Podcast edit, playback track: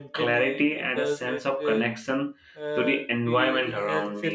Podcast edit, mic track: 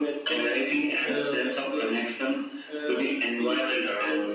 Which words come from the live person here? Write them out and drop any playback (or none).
um,